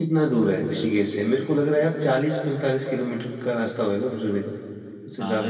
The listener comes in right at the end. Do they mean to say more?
Yes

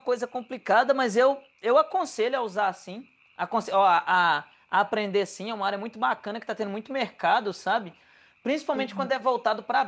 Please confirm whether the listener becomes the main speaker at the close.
No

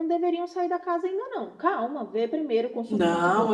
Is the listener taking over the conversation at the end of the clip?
Yes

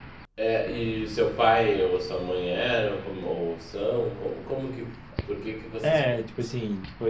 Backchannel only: No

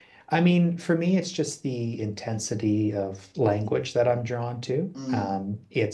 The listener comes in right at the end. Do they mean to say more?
No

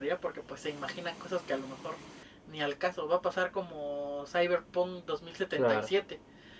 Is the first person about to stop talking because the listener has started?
No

